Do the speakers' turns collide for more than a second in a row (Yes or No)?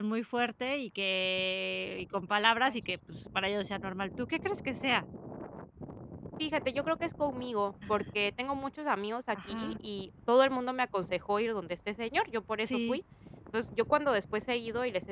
No